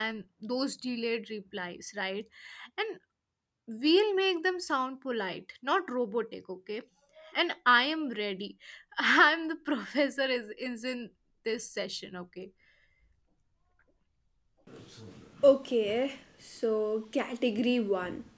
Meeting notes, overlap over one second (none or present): none